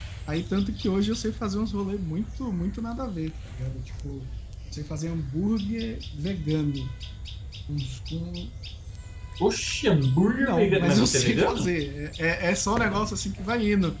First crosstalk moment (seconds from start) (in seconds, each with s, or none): 10.4 s